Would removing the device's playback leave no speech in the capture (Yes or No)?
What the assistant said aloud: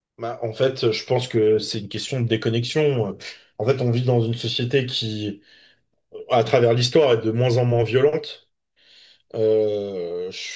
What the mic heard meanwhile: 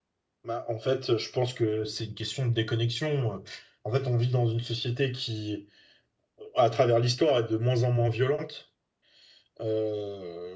Yes